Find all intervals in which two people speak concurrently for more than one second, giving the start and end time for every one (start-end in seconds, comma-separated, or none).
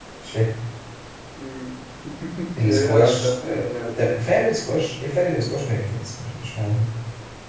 2.6-3.9